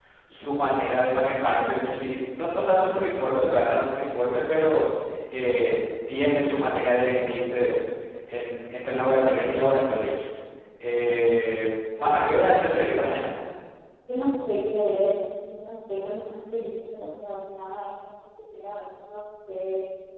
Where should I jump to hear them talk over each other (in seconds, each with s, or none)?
12.0 s